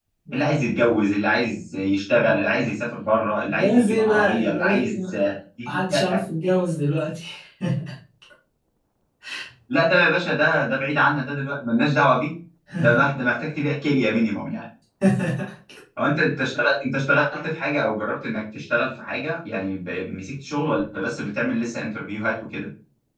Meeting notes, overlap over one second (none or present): present